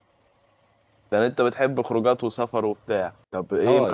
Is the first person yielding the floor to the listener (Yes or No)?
Yes